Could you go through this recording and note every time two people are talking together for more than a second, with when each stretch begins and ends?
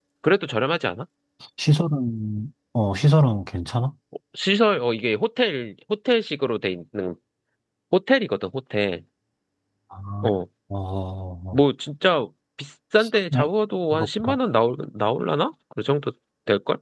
none

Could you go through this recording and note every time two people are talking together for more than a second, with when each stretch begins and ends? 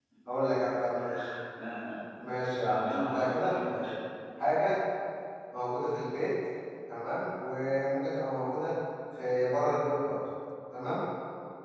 2.7-3.9

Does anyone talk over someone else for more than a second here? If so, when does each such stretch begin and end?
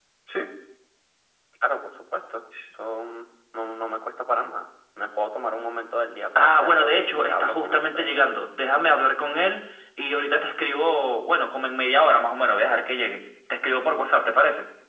6.4-8.3

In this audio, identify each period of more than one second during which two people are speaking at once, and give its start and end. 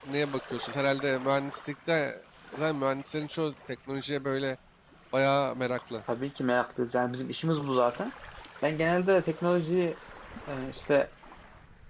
none

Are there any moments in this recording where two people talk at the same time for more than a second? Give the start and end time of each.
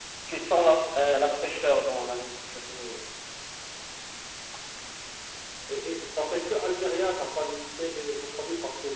none

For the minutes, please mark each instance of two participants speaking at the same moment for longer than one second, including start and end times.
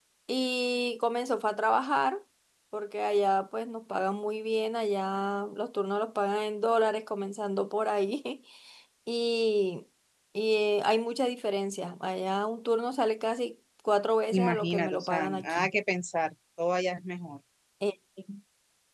14.3-15.7

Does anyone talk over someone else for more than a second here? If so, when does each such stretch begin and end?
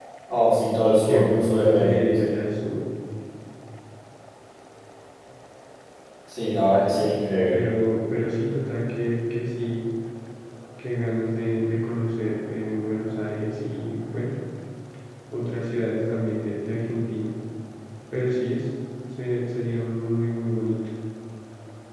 1.0-2.4

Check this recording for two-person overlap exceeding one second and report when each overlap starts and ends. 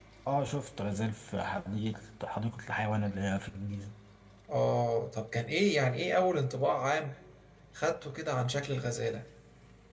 none

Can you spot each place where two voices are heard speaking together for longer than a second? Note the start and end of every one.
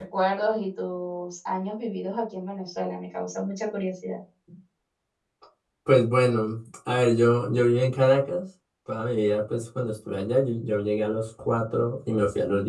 none

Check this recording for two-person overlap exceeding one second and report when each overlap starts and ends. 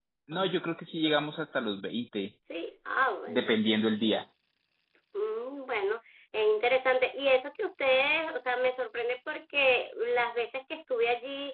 none

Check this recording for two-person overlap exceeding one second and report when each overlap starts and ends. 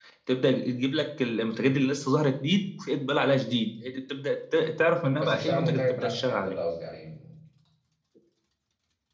5.2-6.5

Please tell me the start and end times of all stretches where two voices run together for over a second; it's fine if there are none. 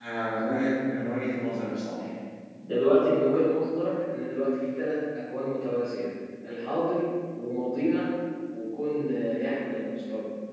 none

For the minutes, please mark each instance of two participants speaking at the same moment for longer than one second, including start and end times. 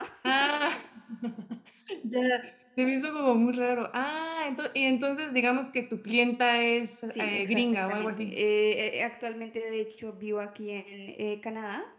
7.1-8.3

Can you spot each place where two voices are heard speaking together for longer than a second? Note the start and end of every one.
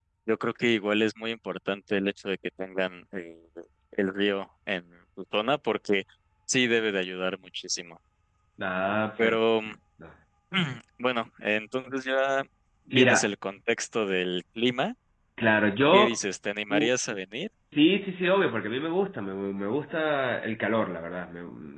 none

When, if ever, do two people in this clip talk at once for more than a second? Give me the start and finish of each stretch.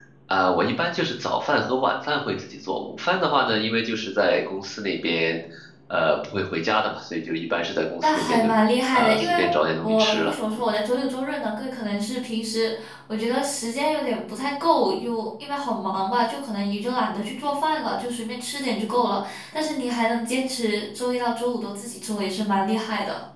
none

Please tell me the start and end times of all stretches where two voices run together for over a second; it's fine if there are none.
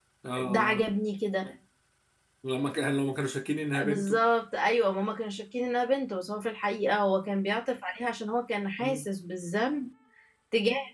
none

